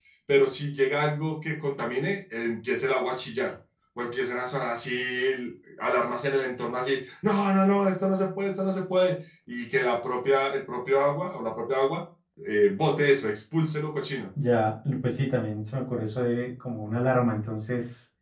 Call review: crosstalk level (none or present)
none